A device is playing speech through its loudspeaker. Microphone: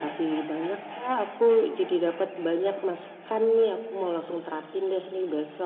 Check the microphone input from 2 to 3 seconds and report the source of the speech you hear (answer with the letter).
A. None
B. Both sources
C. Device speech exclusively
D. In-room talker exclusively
C